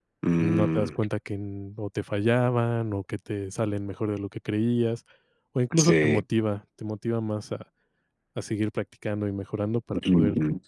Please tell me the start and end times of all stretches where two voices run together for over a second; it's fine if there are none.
none

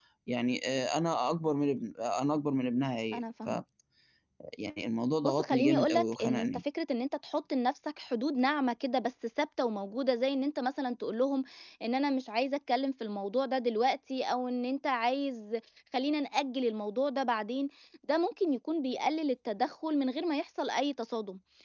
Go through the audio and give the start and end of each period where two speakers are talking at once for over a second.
5.2-6.5

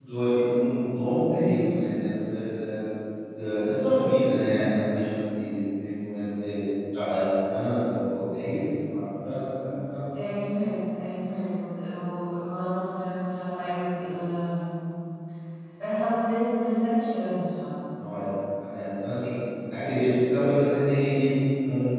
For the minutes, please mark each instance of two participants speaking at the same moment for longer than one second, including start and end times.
none

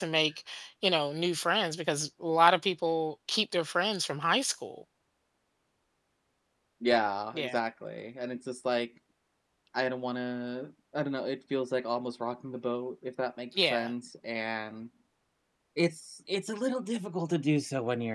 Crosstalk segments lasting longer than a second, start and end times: none

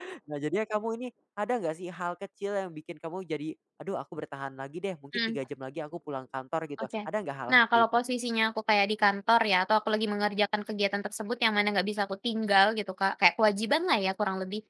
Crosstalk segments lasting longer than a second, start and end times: none

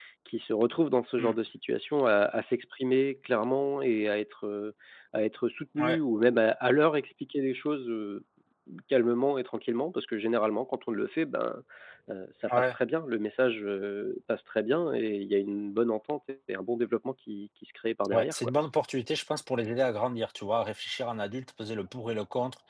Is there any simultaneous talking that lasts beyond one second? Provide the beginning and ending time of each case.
none

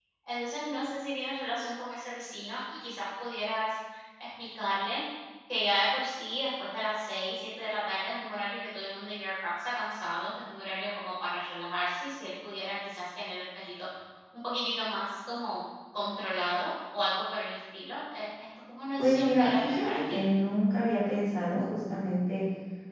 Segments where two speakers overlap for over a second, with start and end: 19.0-20.2

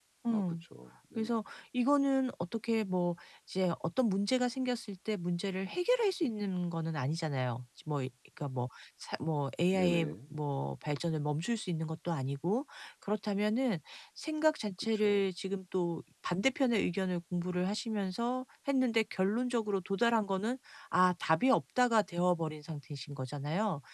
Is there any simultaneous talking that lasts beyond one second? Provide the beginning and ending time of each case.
none

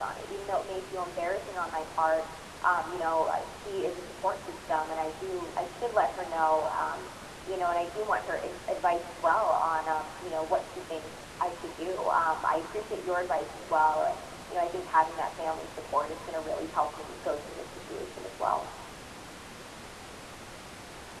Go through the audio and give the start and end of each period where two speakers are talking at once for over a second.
none

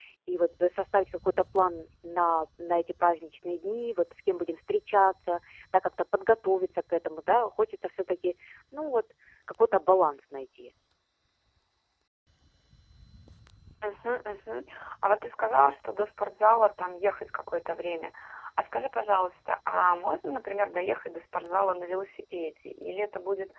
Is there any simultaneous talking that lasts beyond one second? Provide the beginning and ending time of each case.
none

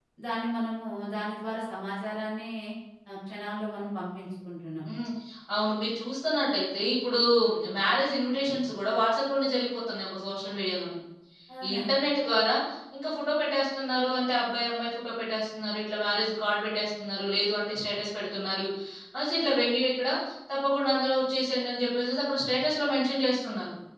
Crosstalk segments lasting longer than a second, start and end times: none

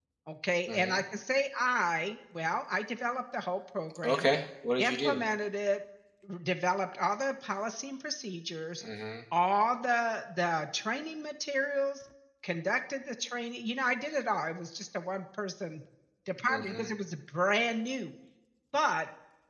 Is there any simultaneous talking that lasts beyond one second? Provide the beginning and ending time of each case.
none

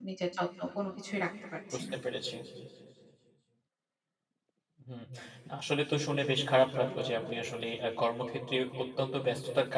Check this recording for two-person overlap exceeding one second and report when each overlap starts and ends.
none

